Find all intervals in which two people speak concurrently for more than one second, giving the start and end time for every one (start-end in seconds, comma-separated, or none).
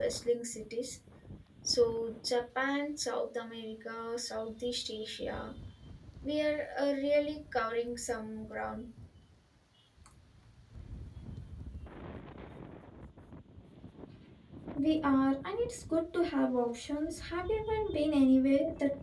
none